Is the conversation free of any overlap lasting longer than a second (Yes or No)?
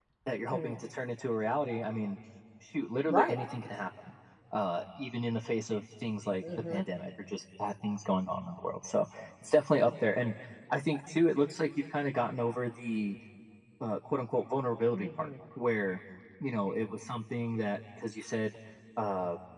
Yes